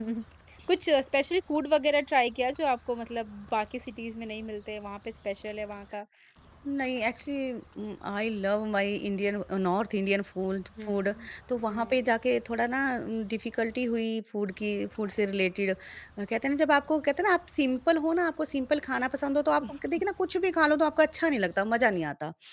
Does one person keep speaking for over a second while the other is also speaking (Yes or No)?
No